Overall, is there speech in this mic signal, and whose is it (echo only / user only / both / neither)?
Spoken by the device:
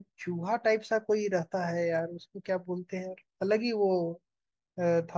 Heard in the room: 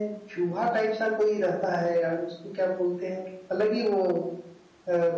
echo only